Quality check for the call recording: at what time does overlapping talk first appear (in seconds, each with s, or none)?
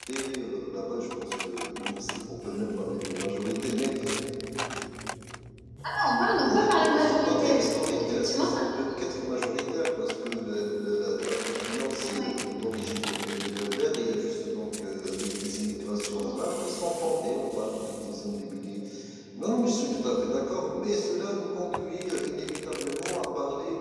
6.4 s